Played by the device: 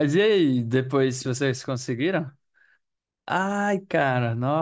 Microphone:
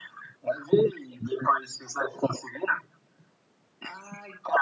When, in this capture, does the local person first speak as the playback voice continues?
none

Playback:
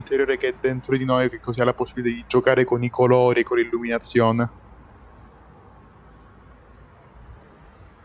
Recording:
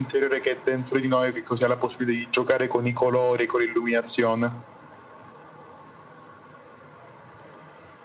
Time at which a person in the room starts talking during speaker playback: none

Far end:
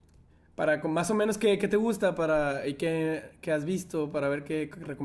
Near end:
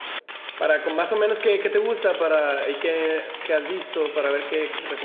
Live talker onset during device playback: none

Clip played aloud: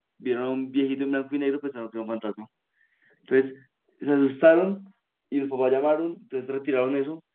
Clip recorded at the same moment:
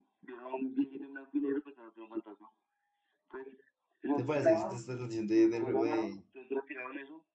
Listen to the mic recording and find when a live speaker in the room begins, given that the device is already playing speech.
4.1 s

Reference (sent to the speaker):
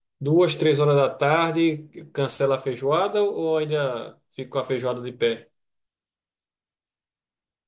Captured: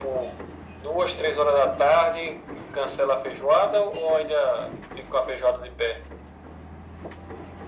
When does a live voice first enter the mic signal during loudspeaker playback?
none

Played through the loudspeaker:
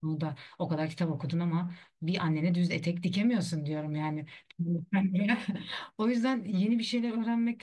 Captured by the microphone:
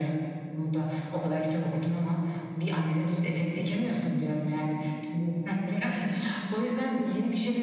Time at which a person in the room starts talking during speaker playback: none

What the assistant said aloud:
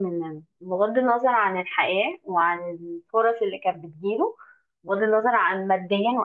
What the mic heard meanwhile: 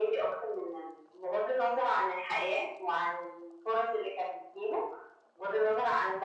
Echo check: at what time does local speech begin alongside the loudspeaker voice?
none

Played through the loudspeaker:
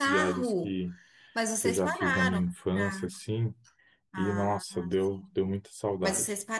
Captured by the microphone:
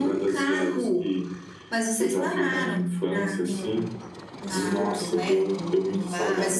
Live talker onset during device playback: 3.4 s

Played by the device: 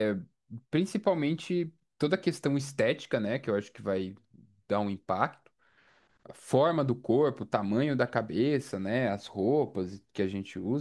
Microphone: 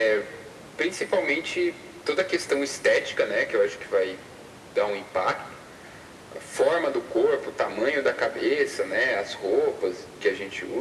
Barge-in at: none

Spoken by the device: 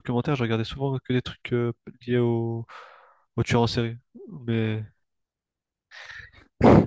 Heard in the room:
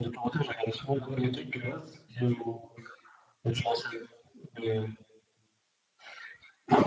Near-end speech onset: 0.9 s

